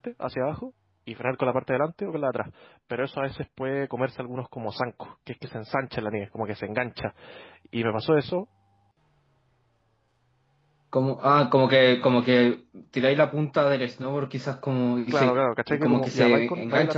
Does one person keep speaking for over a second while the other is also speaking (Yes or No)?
Yes